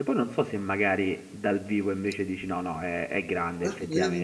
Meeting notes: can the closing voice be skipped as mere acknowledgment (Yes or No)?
No